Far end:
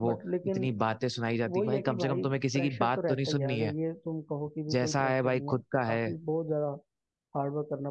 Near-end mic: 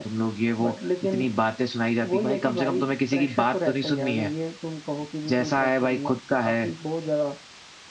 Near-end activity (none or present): none